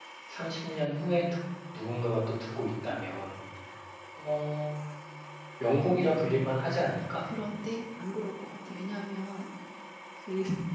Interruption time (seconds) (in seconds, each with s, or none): none